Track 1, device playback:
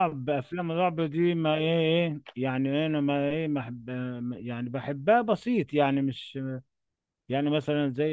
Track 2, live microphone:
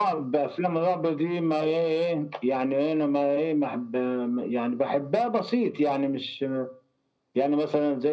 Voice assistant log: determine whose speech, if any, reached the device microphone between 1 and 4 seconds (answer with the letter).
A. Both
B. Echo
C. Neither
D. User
B